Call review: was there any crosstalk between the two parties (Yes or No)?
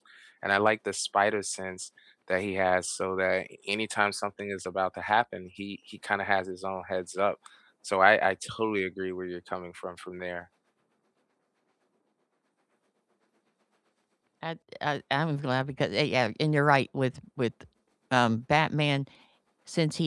No